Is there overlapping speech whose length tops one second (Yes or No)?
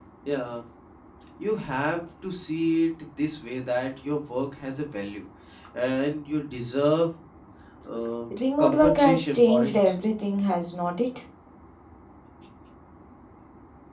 Yes